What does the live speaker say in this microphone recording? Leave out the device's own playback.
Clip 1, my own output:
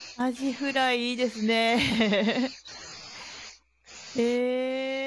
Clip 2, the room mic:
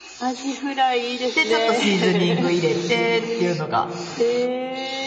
で、ちょっとシーズニング入れてっていうのが

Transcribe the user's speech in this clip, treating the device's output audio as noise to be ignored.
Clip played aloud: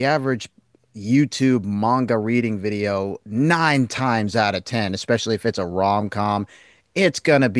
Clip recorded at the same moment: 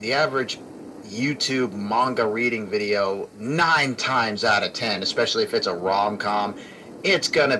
none

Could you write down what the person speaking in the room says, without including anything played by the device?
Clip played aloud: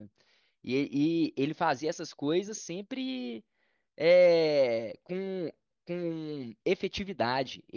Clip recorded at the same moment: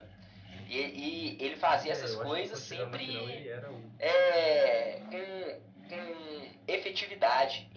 É, eu acho que quando chegaram na final ele era o,

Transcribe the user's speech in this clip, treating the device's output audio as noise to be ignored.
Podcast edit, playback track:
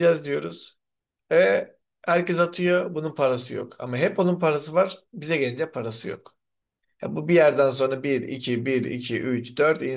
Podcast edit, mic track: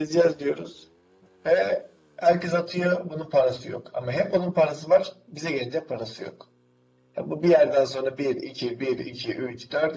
none

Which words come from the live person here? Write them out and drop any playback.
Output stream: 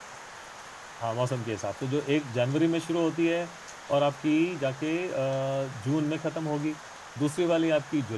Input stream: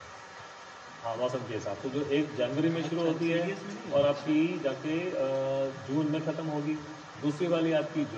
अच्छा तो सीडीएस में नहीं होता ऐसे

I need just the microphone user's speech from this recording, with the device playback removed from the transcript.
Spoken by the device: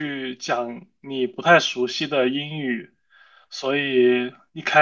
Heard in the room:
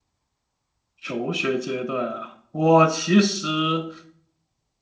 求学阶段啊，我其实，

